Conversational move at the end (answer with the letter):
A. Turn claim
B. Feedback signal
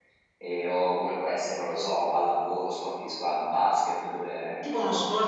A